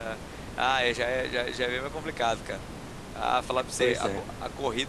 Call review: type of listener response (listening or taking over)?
listening